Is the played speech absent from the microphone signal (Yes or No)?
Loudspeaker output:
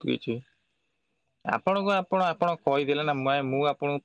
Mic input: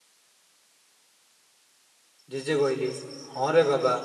Yes